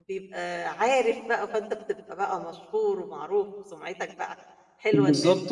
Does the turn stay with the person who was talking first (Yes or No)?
No